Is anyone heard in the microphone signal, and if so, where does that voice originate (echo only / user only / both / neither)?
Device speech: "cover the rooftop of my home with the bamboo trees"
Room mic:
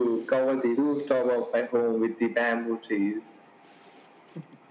echo only